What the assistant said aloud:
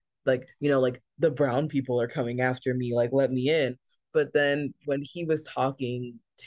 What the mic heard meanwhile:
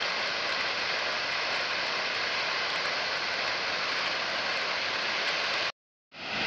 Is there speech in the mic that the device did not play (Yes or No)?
No